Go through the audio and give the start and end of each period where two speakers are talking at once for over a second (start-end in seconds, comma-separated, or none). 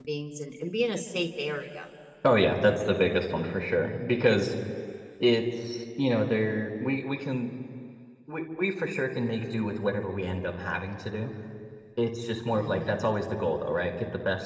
none